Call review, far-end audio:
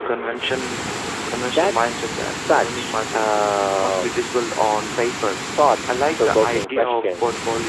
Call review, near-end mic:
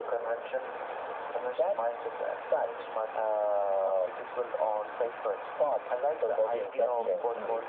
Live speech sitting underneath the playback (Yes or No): Yes